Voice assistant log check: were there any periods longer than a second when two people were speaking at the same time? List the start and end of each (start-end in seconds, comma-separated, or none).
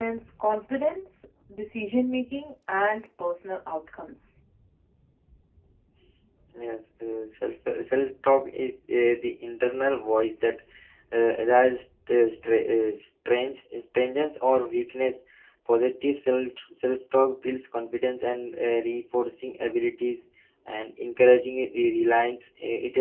none